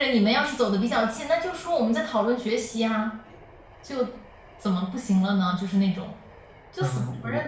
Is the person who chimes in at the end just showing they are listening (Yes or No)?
No